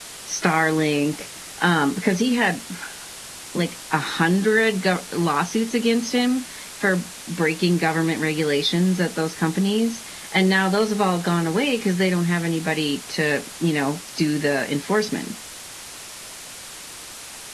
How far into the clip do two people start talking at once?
none

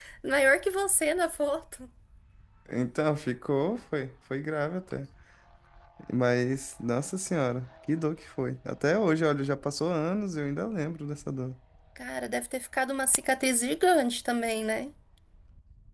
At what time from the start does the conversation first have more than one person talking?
none

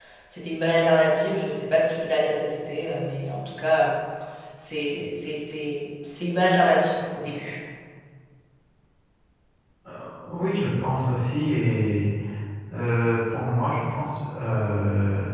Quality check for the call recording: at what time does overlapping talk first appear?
none

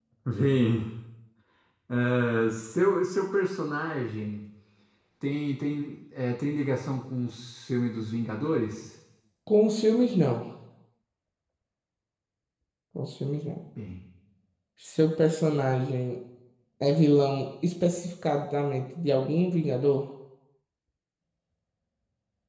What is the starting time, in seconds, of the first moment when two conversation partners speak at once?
none

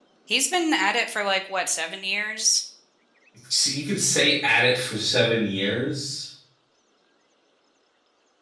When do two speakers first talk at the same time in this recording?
none

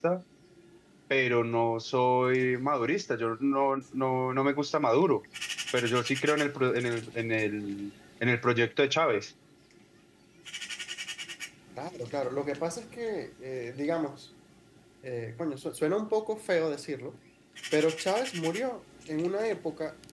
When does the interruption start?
none

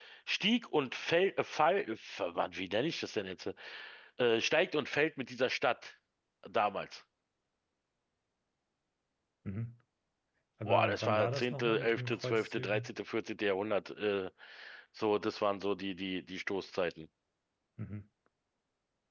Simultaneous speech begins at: 10.6 s

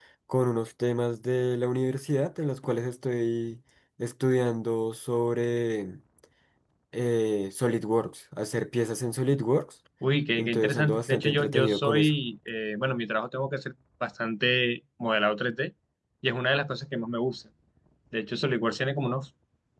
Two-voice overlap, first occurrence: 10.4 s

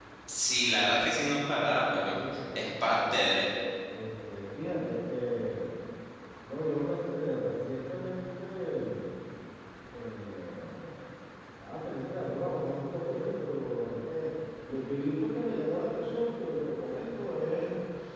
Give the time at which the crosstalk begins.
2.0 s

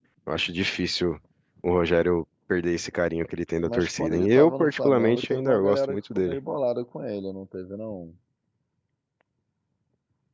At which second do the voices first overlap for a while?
3.6 s

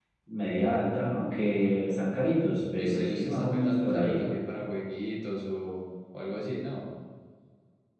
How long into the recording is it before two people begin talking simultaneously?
2.8 s

